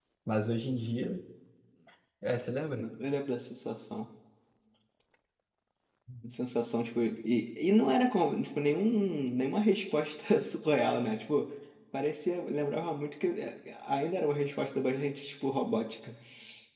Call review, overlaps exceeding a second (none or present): none